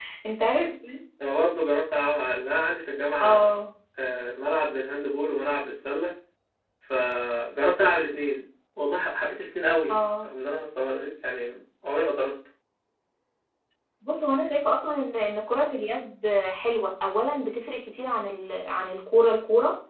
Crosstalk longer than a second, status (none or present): none